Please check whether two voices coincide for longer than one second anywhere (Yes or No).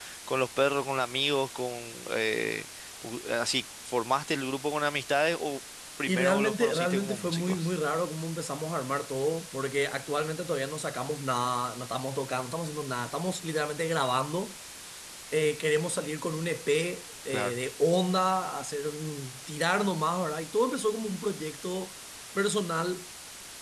Yes